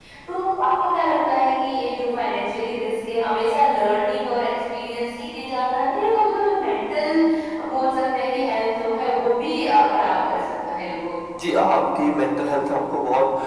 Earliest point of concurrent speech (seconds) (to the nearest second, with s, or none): none